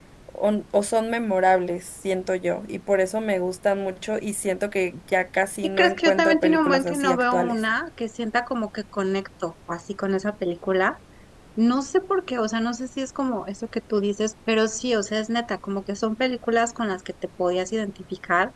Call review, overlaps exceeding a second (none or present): present